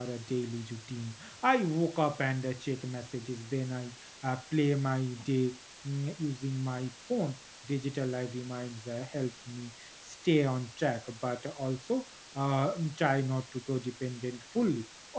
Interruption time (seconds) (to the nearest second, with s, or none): none